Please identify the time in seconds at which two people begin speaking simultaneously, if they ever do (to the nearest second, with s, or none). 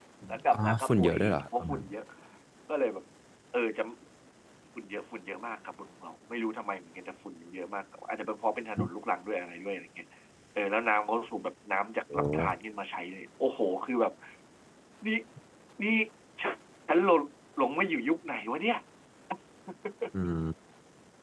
1 s